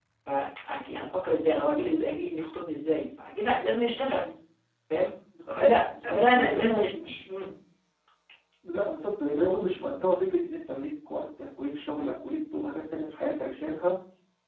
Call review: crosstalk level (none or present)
present